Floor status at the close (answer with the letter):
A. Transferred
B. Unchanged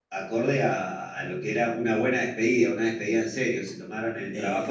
B